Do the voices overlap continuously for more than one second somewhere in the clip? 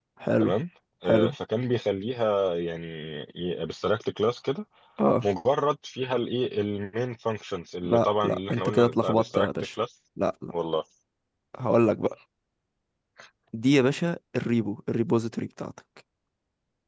Yes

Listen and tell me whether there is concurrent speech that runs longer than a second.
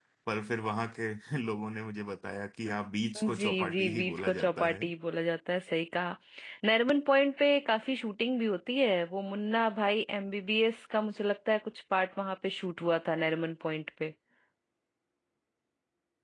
Yes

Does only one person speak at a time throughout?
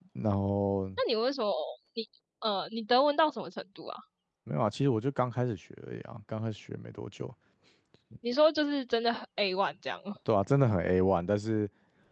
Yes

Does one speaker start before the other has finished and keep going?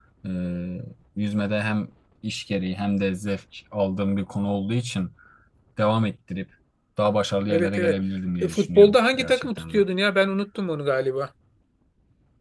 Yes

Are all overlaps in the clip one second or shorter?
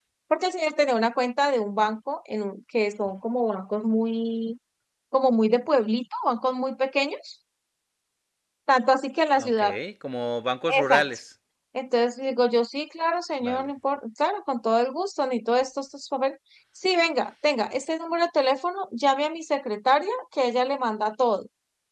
Yes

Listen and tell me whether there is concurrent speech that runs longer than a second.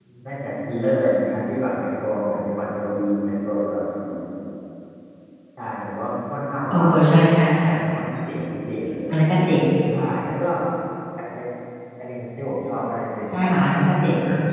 No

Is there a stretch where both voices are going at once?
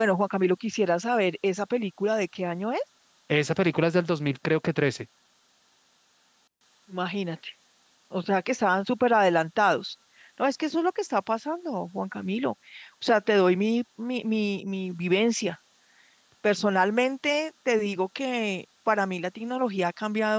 No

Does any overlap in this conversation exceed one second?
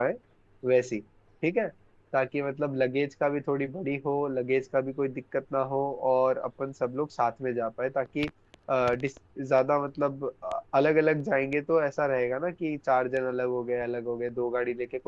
No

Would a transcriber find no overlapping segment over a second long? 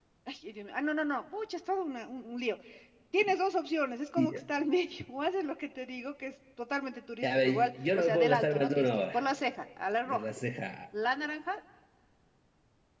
No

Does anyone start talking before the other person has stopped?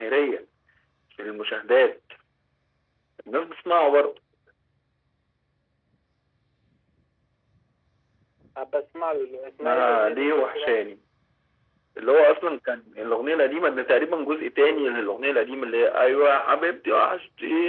Yes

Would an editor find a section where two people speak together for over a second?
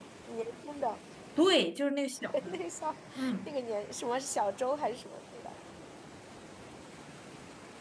No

